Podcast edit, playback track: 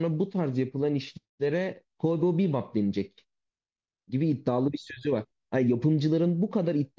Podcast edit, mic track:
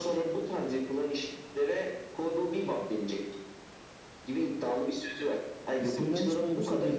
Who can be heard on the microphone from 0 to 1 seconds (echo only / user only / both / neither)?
echo only